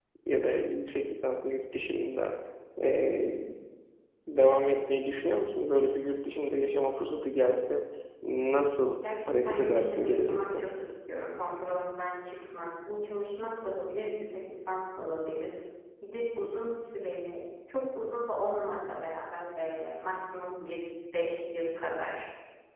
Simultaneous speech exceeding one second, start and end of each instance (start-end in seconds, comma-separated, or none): 9.3-10.6